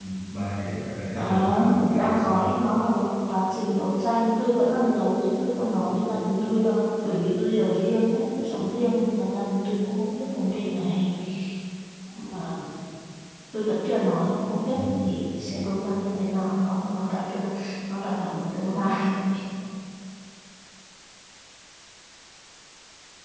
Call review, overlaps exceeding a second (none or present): present